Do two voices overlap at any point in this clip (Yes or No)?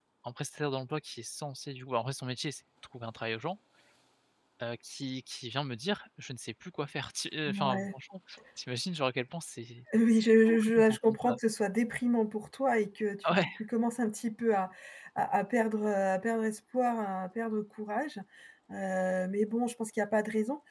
Yes